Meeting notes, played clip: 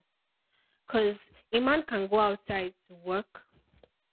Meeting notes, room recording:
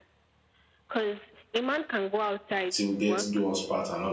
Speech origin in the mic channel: both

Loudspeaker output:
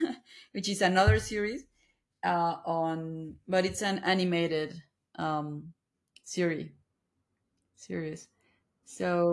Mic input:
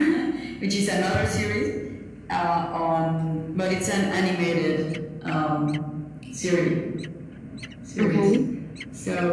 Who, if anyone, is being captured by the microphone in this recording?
both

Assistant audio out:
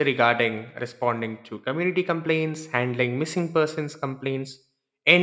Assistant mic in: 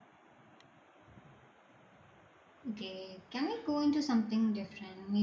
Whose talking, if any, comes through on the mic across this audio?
user only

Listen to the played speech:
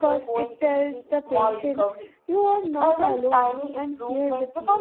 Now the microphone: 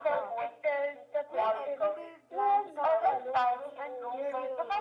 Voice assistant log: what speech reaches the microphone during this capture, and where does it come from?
both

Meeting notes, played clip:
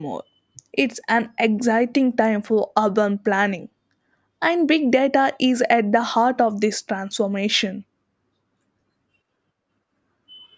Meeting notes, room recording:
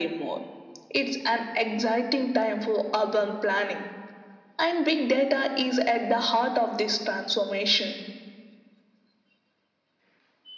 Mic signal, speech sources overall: echo only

